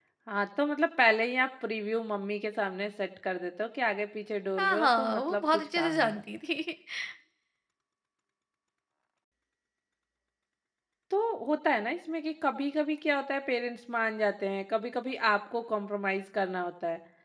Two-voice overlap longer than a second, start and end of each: 4.6-6.2

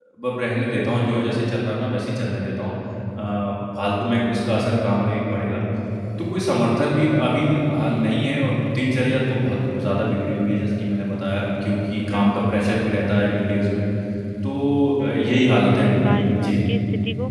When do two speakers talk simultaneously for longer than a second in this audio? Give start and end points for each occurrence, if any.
15.0-16.5

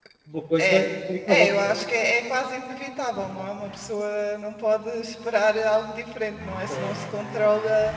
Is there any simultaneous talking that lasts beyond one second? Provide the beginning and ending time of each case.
none

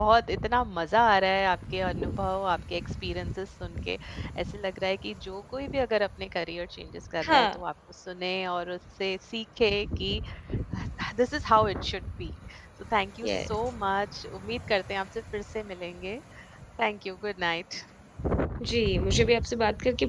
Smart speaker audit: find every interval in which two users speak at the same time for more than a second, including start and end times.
none

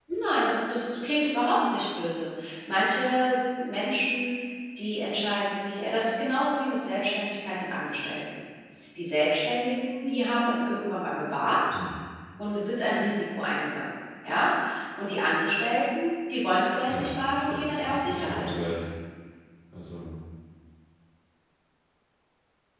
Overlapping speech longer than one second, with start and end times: 16.9-18.5

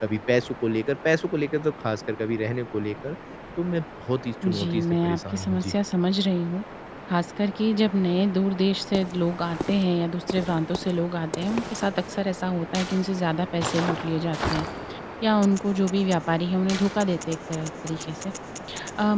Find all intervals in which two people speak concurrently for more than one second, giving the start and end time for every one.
4.5-5.8

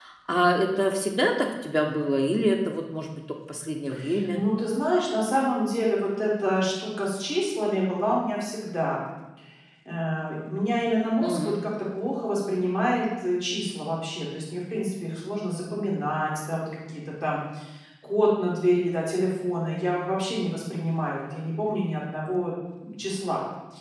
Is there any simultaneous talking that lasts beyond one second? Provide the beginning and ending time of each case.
none

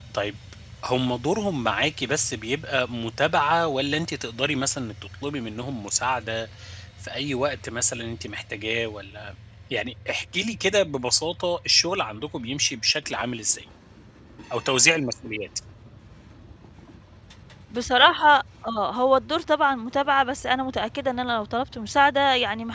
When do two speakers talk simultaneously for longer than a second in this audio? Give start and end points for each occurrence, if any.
none

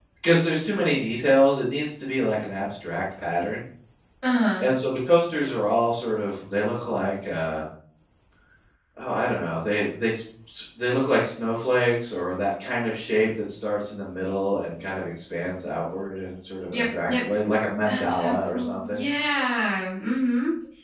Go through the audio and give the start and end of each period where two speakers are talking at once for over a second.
17.8-19.1

